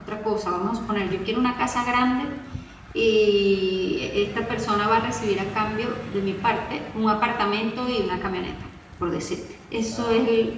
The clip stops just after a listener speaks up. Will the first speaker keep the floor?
Yes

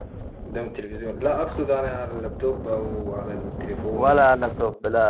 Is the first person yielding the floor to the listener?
Yes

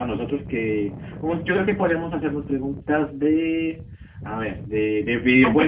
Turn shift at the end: Yes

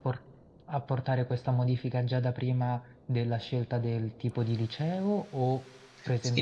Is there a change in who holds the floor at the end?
Yes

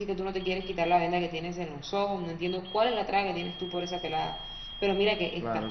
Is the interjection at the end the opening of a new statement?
No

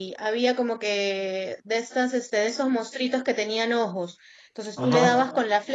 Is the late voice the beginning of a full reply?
No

